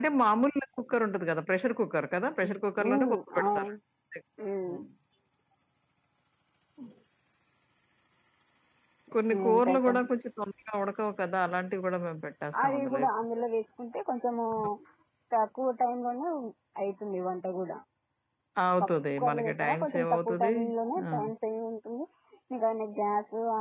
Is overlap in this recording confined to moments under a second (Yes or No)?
No